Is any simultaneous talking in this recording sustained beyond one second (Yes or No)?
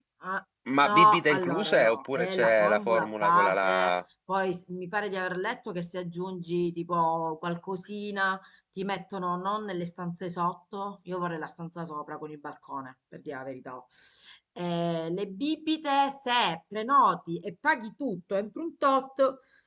Yes